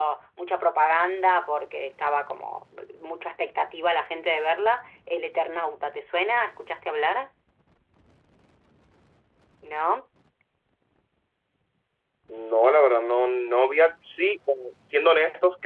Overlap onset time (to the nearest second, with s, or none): none